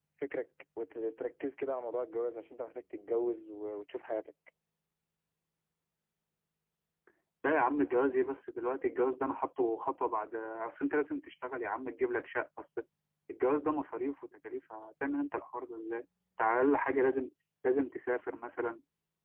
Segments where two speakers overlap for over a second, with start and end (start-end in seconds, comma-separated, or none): none